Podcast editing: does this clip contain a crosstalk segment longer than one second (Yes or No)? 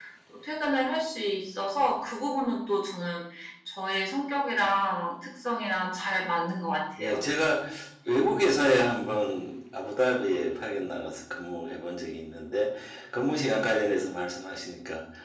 No